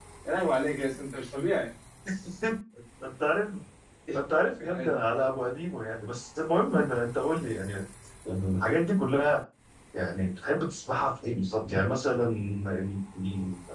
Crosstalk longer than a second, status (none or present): none